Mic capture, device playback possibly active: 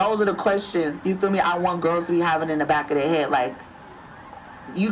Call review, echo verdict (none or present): present